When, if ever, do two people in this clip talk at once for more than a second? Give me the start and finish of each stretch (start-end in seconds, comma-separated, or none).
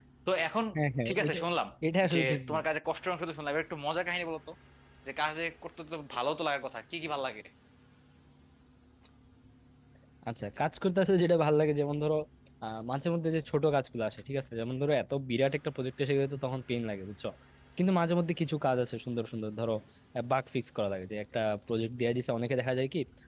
none